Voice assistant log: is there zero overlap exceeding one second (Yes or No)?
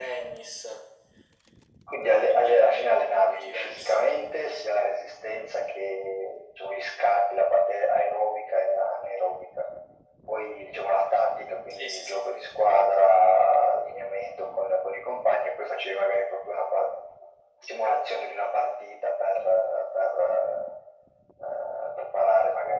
No